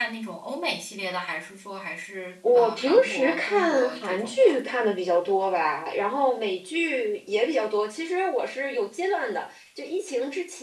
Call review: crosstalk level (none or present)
present